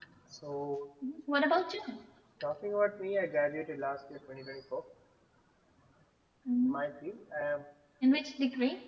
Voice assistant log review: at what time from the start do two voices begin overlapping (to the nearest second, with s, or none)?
none